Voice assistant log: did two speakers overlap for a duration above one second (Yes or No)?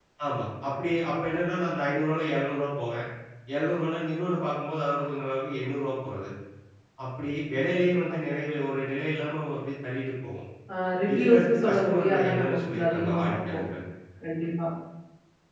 Yes